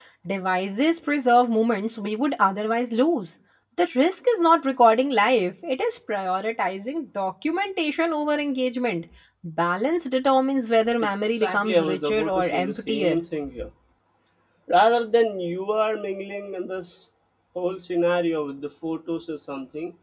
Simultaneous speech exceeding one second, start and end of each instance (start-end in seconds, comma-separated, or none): 11.2-13.2